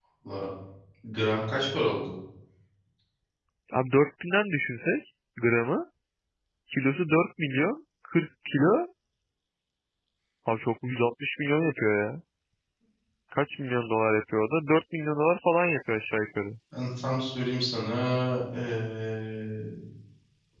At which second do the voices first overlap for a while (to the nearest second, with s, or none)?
none